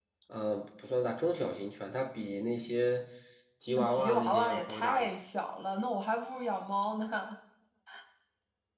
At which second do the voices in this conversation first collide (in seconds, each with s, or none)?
3.8 s